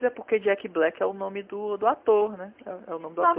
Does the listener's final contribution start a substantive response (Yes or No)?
Yes